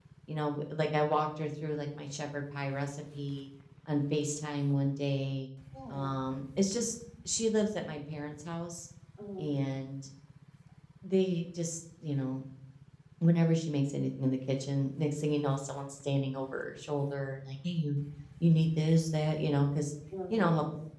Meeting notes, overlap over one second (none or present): none